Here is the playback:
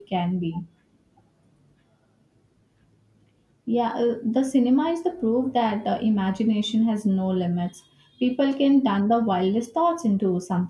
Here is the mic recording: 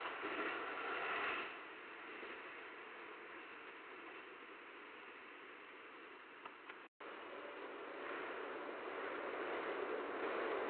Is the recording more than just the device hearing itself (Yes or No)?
No